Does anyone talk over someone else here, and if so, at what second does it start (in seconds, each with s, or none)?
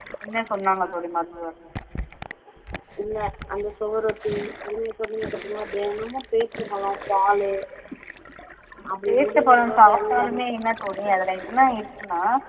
9.1 s